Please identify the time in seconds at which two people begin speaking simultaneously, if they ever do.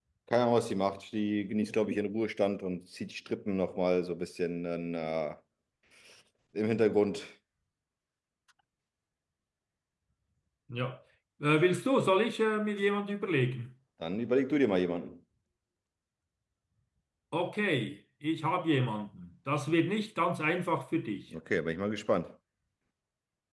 none

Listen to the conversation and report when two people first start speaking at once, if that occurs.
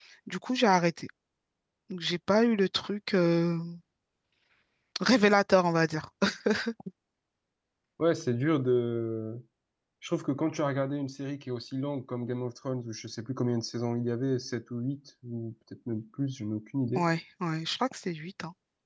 none

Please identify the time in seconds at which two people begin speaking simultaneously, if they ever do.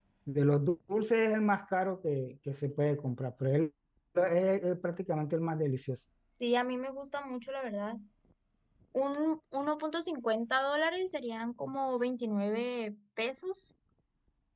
none

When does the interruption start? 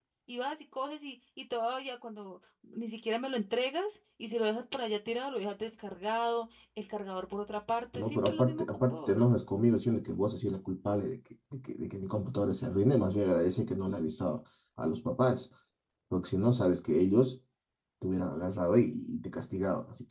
8 s

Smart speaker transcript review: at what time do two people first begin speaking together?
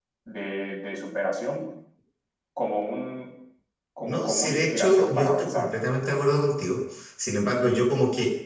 4 s

